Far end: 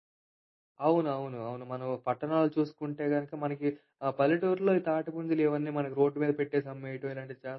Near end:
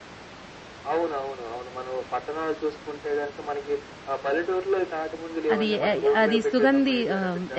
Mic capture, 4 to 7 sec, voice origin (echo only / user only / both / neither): both